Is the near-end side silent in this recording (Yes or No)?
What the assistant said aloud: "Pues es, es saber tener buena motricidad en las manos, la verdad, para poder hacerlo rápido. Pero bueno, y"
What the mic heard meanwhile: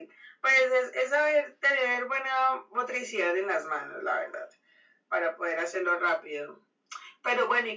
Yes